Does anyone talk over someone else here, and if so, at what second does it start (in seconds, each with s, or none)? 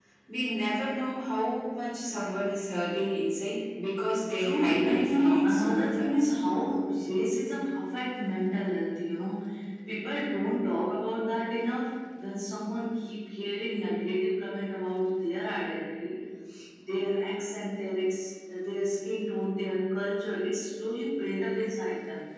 4.4 s